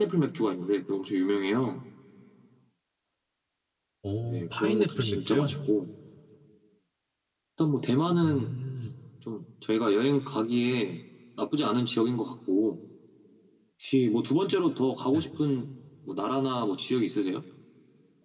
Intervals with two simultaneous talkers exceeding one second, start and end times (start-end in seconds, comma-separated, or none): 4.3-5.5